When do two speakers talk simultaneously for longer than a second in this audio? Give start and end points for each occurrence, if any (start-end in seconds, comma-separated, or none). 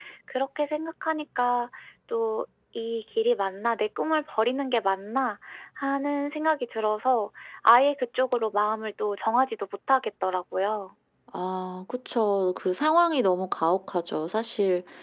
none